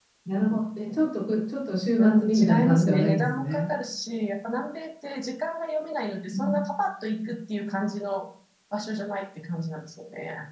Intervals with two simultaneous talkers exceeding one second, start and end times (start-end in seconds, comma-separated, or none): 2.0-3.7